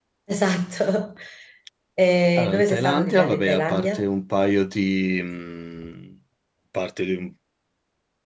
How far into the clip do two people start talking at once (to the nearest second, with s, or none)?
2 s